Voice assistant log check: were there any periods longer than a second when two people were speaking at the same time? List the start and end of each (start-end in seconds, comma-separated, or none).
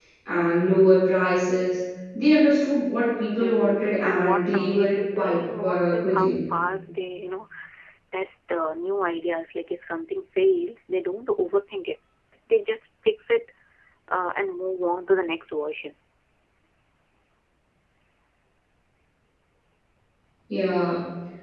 3.4-6.4